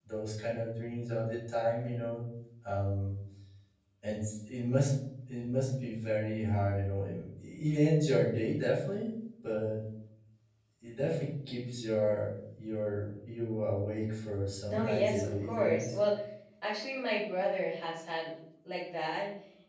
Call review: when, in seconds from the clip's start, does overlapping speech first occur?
14.7 s

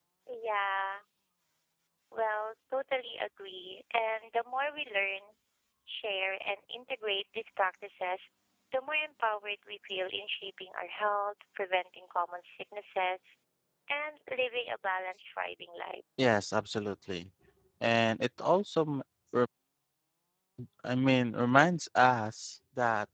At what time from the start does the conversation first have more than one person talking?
none

